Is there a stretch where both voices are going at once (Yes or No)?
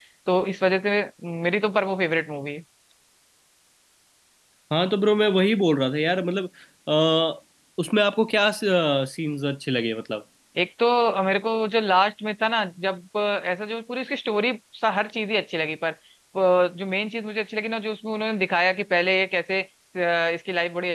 No